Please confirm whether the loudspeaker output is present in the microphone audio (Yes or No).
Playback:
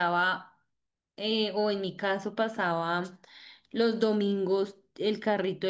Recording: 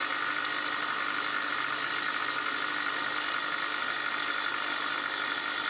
No